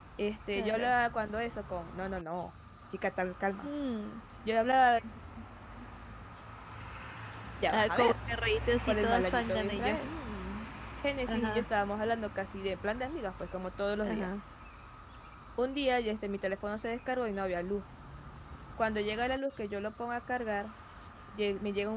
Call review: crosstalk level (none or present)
present